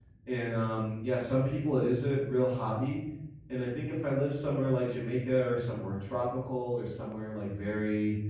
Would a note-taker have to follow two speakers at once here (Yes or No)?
No